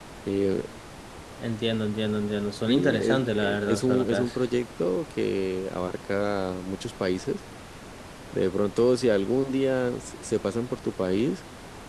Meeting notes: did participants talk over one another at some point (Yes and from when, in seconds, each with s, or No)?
Yes, from 2.7 s